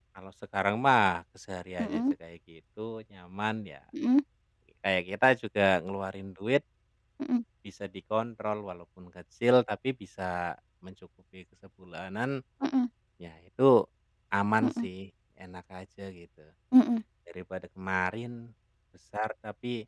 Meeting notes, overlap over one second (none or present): none